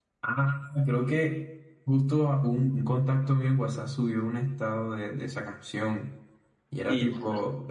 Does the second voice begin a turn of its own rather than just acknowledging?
No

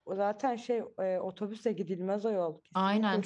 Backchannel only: No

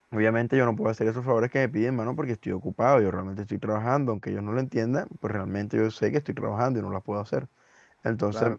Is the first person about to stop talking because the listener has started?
No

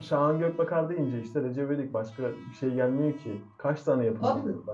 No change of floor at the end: Yes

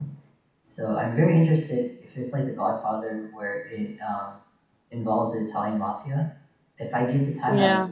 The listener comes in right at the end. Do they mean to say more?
No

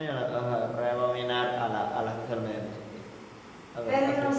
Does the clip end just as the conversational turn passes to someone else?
Yes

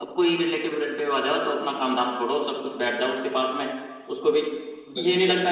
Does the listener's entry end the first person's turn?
No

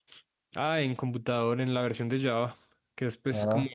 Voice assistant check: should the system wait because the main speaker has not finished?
Yes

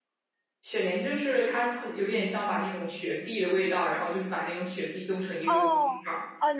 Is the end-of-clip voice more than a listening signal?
Yes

